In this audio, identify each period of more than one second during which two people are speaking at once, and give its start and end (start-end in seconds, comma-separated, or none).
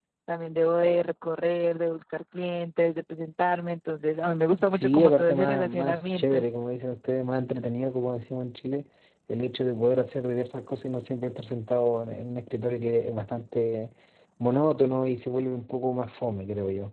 4.7-6.4